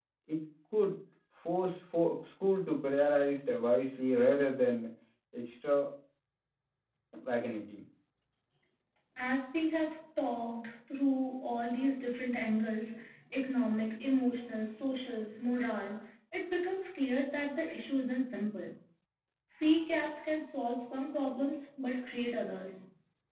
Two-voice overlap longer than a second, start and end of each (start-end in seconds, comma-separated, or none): none